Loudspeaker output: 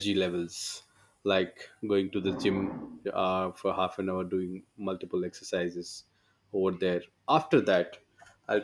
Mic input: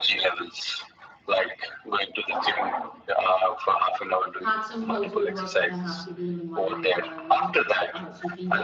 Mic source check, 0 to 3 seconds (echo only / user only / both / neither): echo only